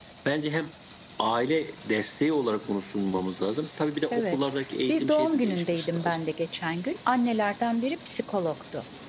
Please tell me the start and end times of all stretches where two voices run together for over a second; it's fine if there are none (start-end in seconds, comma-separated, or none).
4.9-6.2